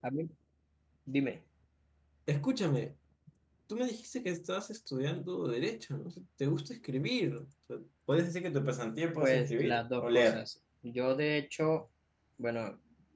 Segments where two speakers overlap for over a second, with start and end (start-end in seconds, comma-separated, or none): 9.2-10.4